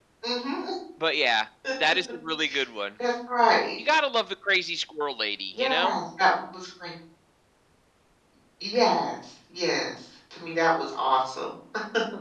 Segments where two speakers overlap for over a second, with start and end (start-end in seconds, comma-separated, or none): none